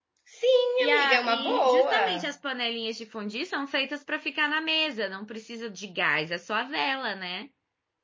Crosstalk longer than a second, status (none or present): present